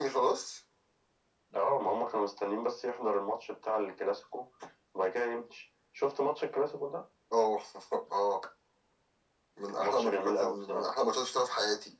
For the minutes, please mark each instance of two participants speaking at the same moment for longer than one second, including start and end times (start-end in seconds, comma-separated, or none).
9.7-10.9